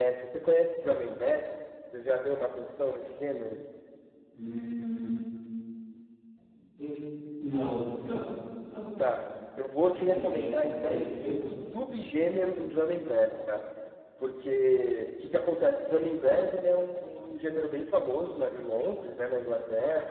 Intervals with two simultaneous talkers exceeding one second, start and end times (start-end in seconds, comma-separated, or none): 9.8-11.5